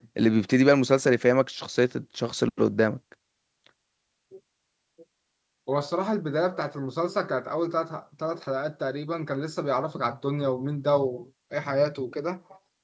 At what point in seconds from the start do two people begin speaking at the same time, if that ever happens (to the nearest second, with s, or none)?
none